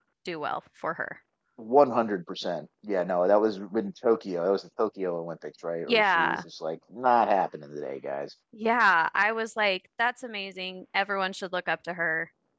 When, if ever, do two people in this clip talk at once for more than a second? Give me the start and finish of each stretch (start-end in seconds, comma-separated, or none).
none